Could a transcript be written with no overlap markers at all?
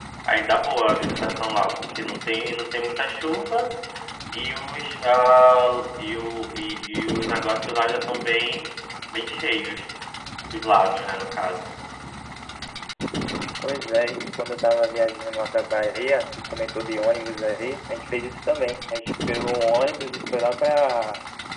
Yes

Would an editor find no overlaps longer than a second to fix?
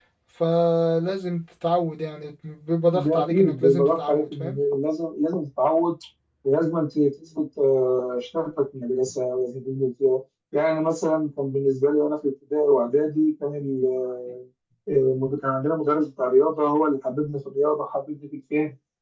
No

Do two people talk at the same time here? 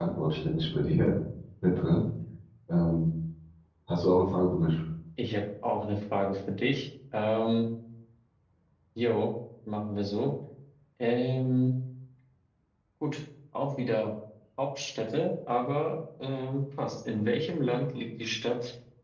No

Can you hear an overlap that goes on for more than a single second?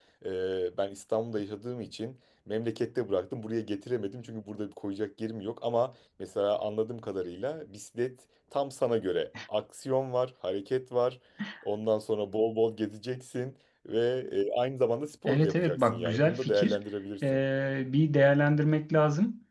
Yes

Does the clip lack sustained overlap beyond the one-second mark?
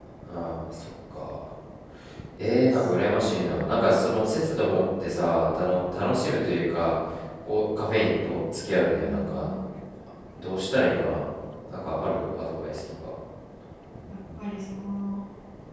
No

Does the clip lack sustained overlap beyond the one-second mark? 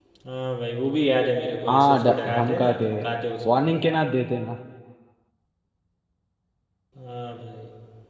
No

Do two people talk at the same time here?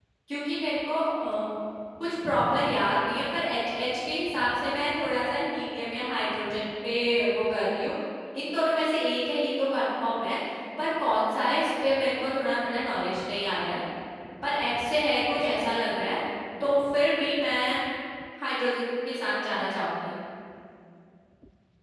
No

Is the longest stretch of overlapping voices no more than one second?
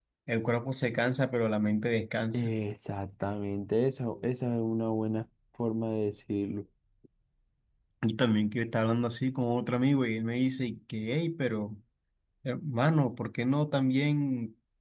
Yes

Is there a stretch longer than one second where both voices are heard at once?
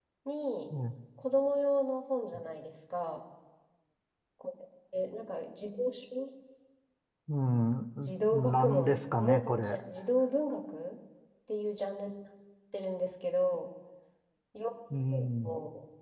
Yes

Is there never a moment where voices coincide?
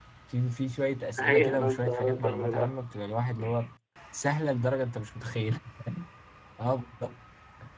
No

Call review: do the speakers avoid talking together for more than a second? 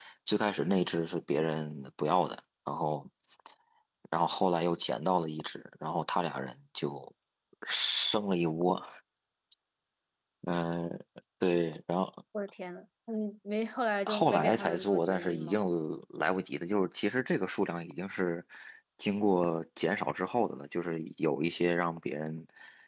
No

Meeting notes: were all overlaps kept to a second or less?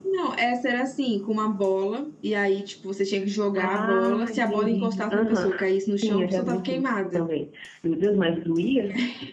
No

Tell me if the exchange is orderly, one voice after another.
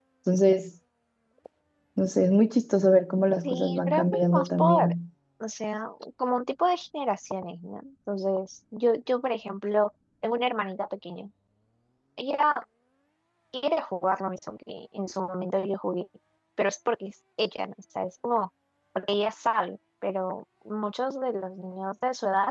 No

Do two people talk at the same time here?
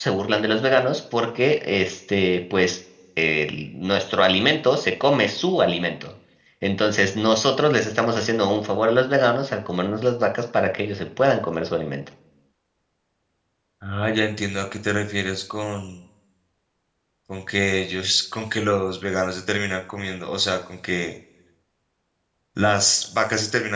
No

